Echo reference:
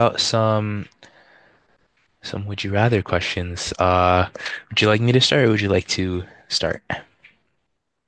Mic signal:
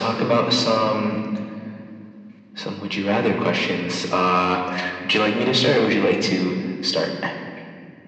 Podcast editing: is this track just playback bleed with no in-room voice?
Yes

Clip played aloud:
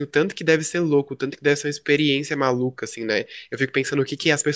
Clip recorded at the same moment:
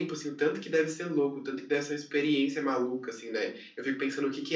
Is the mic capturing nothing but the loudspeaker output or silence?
Yes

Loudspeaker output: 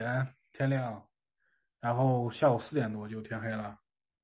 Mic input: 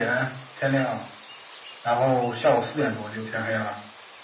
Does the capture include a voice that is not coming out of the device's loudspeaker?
No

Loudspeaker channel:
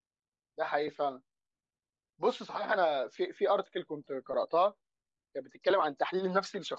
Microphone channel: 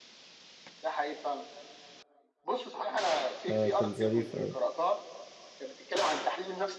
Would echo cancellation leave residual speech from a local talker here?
Yes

